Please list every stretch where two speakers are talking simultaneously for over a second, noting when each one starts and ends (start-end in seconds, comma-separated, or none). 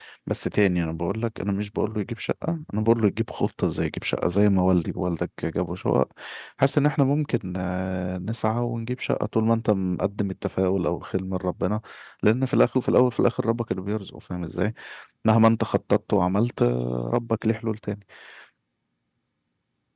none